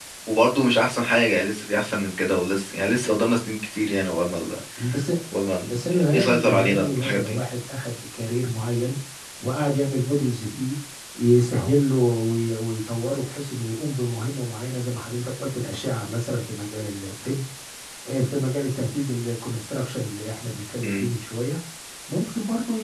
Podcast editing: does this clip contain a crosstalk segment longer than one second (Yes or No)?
Yes